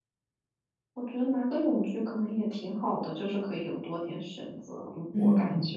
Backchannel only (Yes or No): No